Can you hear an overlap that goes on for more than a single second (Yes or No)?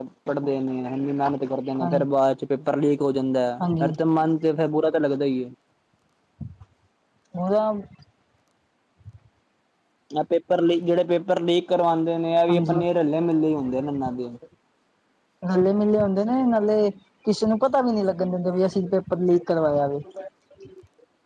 No